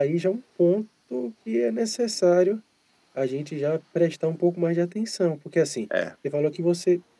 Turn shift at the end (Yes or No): No